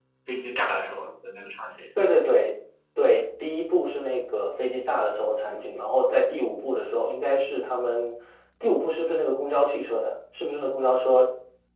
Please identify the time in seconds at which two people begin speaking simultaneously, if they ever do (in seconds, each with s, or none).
none